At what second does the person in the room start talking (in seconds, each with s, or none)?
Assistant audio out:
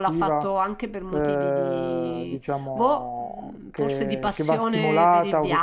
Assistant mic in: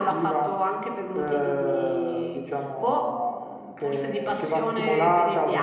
none